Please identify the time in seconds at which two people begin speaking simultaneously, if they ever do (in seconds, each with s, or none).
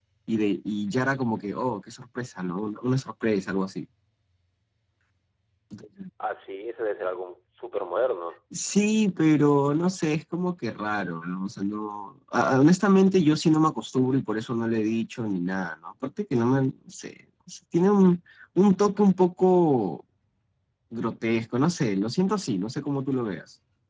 none